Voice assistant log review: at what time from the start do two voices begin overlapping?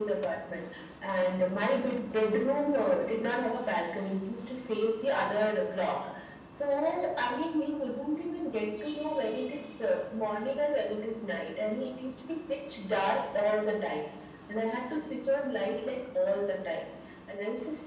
none

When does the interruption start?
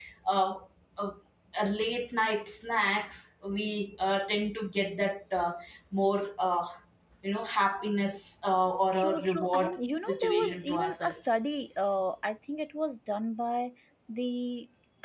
8.9 s

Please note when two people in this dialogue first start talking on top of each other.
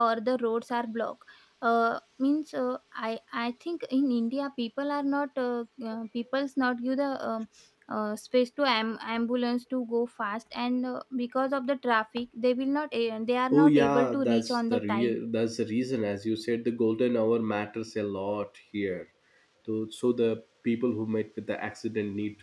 13.5 s

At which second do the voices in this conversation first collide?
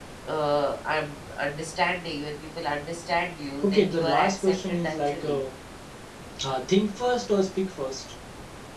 3.6 s

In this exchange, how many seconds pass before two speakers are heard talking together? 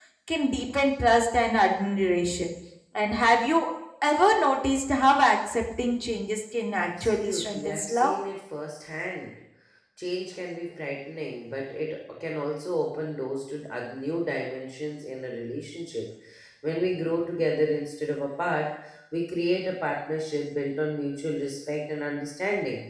6.8 s

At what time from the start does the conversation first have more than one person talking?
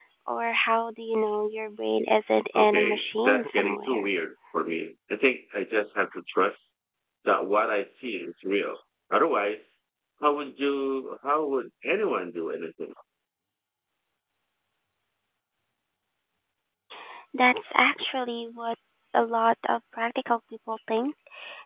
2.5 s

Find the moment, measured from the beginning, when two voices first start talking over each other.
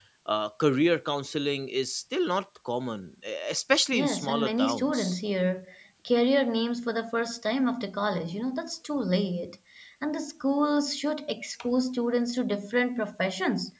3.9 s

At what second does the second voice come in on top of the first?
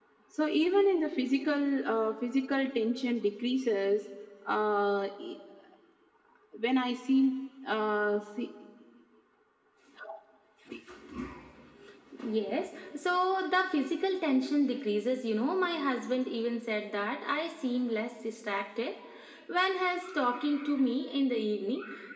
none

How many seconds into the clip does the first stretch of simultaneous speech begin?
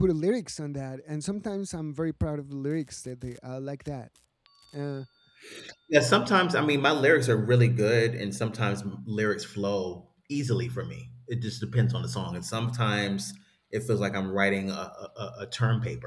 none

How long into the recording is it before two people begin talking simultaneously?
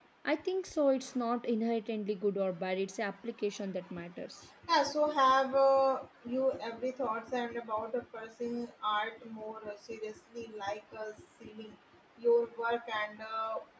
none

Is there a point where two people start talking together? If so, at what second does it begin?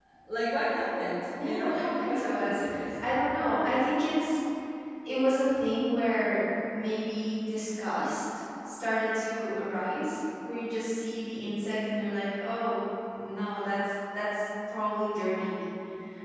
1.3 s

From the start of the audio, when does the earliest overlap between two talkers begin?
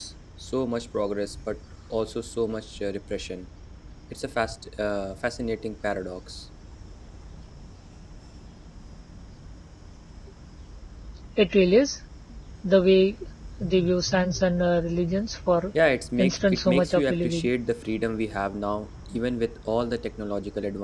16.2 s

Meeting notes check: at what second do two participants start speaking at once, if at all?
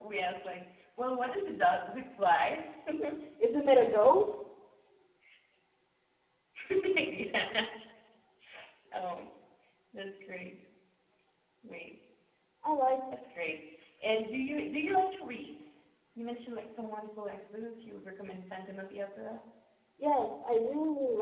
none

